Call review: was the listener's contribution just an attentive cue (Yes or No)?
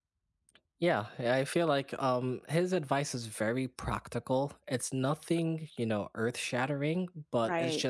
Yes